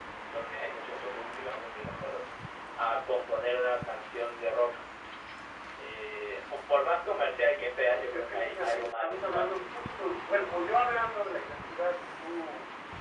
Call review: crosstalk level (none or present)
present